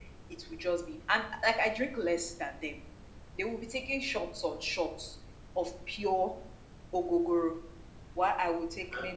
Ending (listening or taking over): listening